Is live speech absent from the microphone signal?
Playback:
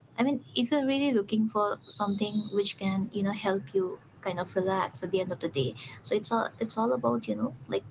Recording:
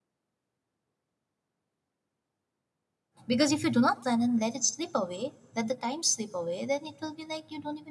No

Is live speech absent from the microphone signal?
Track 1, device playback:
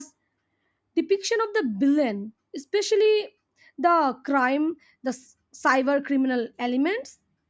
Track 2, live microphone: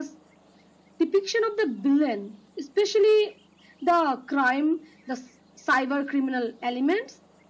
Yes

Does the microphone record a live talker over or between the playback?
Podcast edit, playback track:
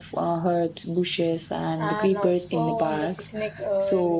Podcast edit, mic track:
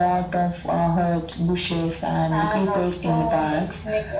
No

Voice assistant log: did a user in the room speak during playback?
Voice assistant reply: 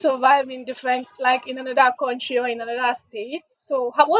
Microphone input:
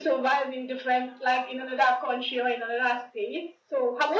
No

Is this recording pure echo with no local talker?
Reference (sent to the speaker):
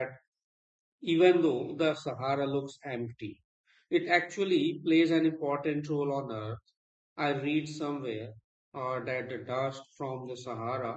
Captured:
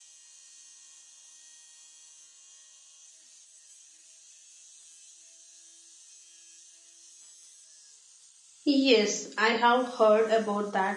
No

